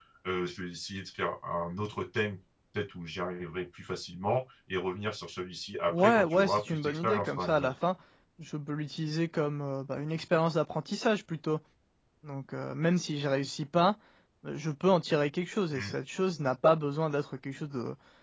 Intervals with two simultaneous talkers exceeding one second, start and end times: 6.0-7.7

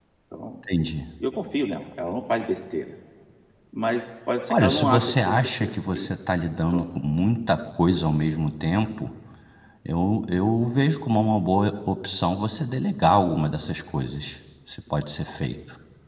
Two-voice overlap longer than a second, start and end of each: 4.5-6.1

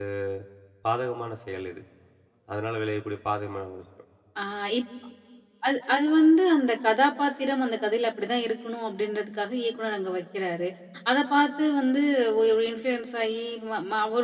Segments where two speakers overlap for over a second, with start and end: none

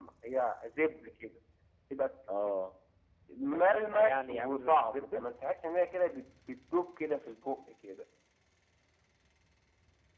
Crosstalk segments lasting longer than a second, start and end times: 3.5-5.2

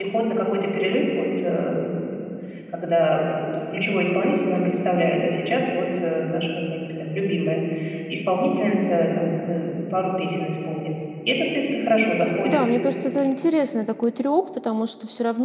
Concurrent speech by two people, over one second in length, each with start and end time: none

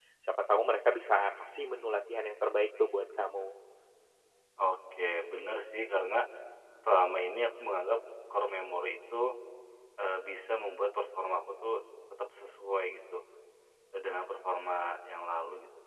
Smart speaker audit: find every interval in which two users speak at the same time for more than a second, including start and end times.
none

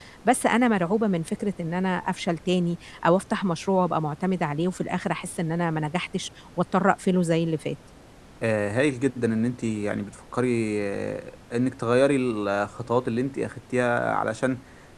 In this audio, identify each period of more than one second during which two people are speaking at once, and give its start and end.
none

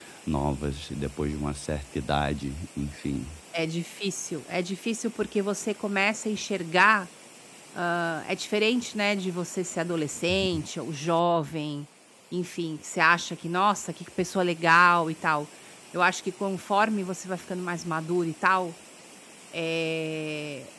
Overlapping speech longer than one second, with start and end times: none

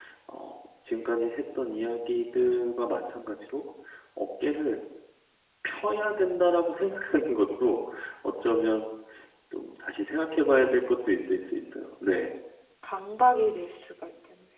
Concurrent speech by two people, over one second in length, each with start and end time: none

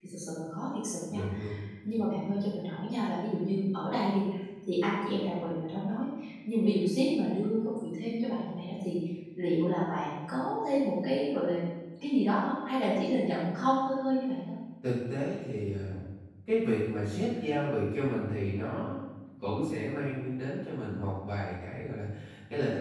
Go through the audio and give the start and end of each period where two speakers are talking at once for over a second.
none

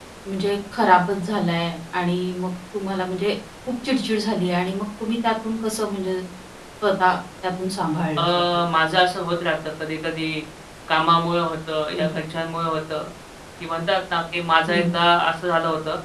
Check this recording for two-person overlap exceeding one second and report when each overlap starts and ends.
none

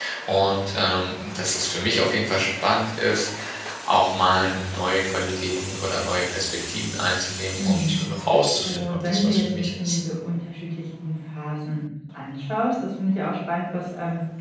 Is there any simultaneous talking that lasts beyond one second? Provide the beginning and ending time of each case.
8.6-10.0

